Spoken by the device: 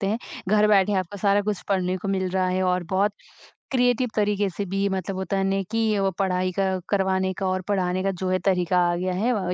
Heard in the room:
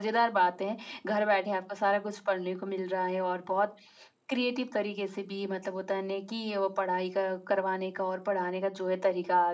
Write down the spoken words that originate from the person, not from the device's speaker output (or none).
none